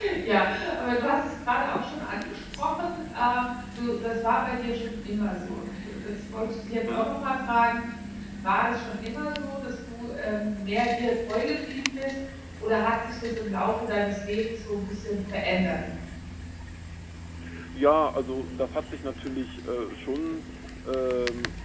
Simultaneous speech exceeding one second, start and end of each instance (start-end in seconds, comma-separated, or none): none